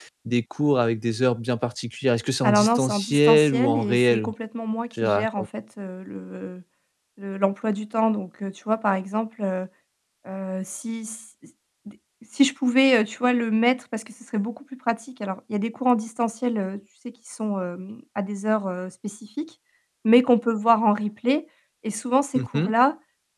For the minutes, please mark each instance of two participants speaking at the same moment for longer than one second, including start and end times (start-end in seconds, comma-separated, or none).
2.4-4.3